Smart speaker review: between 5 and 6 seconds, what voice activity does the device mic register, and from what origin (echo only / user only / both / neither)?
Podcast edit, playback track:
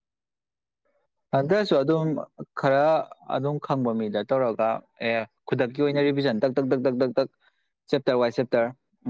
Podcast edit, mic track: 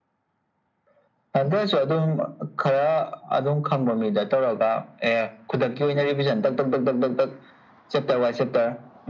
echo only